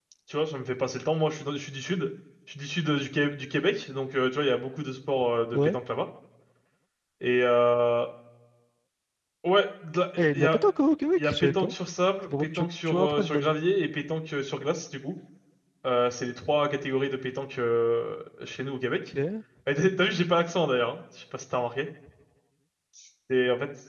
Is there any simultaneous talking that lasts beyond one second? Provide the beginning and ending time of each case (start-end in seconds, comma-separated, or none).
12.2-13.5